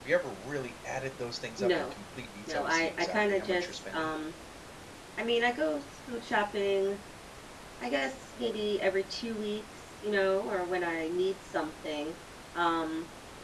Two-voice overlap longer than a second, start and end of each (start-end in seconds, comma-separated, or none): 2.5-4.1